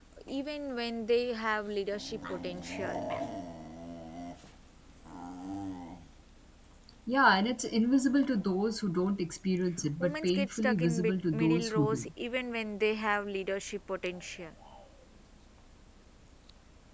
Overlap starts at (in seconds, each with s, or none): 10.0 s